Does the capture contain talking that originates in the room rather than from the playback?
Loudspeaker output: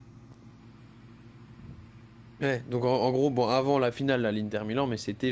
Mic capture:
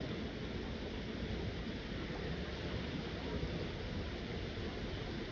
No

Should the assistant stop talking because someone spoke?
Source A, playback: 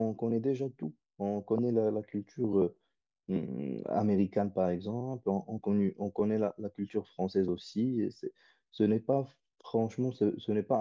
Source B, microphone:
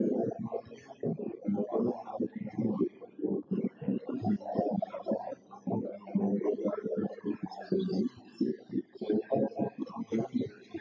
No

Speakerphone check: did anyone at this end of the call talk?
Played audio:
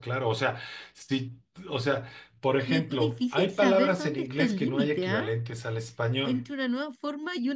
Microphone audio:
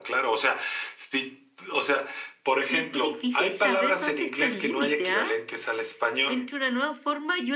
No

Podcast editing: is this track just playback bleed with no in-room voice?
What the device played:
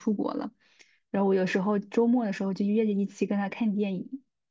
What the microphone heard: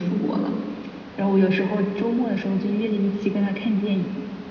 Yes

